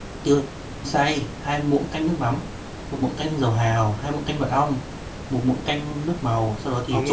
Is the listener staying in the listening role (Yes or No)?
No